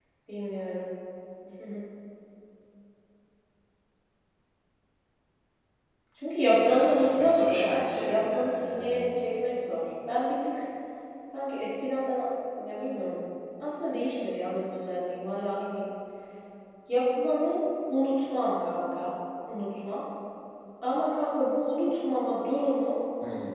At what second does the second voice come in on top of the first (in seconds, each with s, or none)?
6.6 s